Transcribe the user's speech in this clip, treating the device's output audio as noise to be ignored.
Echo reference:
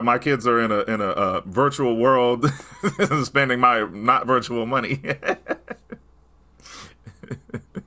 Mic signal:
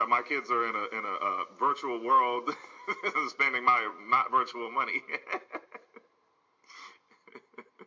none

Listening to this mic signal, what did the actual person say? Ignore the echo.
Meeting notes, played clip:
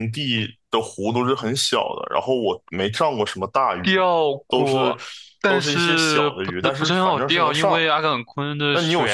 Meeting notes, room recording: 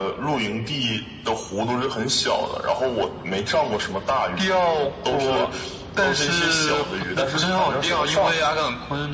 none

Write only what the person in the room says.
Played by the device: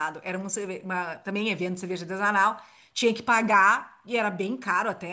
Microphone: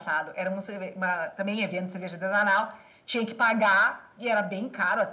none

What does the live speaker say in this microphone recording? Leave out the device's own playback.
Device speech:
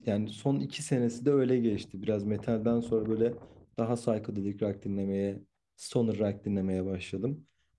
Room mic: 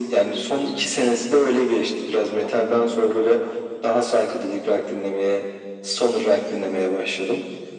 none

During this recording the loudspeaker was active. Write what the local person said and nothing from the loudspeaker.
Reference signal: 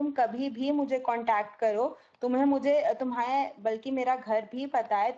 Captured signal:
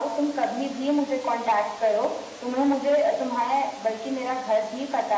none

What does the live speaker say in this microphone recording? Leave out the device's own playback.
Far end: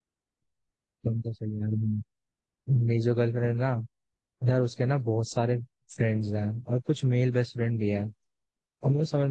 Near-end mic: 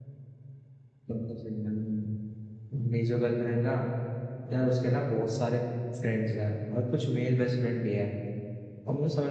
none

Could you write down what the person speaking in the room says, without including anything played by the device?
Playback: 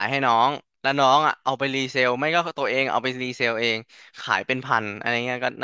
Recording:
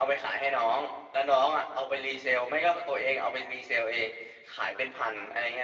none

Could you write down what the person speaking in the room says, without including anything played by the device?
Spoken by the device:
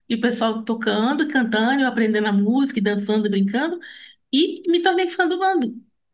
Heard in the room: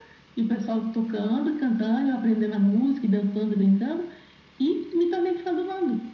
none

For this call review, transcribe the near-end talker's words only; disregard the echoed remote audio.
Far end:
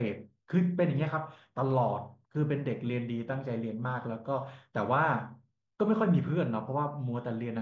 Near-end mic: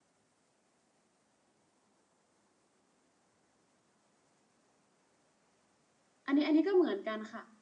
อันนี้อันนี้ก็เหมือนกันค่ะ

